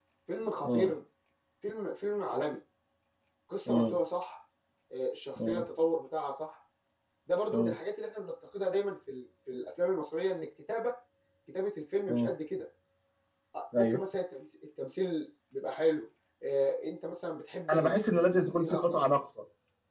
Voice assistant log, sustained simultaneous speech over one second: present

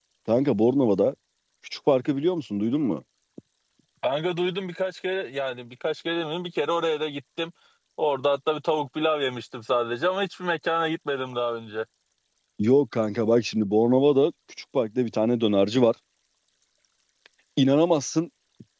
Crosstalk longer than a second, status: none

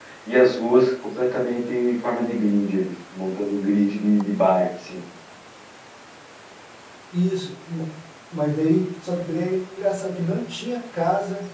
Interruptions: none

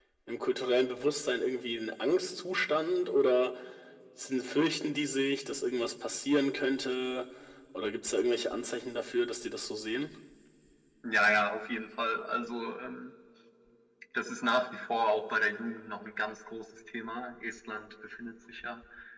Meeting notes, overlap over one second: none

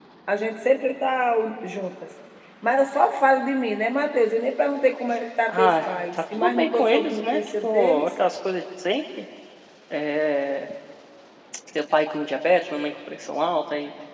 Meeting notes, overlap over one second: present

